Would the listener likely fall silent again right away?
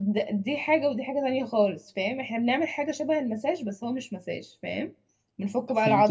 No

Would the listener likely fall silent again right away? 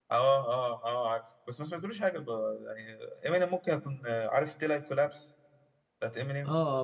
No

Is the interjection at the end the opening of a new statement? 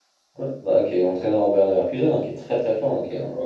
Yes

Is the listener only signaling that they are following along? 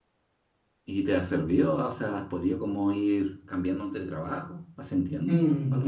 No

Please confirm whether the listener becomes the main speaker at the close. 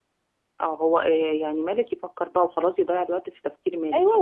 Yes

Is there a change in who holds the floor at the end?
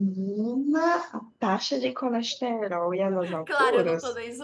Yes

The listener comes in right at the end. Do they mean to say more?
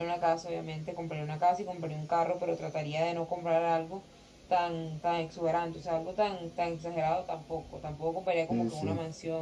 No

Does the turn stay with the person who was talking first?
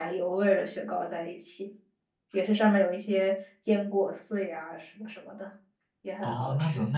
No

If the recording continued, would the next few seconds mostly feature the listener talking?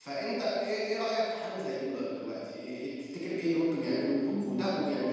No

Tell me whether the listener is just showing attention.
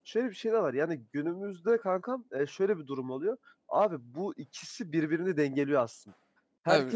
Yes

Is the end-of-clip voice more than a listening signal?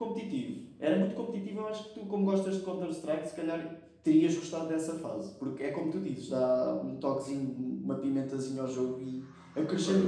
Yes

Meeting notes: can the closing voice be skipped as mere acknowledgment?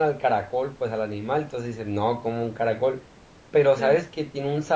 Yes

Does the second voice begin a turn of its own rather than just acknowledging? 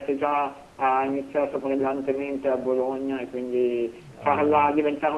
No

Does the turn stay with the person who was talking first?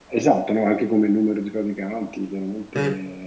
Yes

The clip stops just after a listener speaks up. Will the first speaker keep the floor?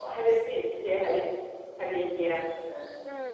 No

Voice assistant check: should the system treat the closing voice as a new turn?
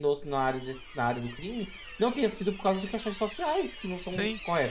Yes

